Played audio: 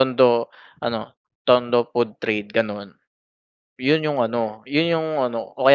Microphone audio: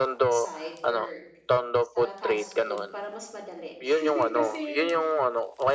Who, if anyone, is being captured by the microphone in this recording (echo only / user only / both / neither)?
both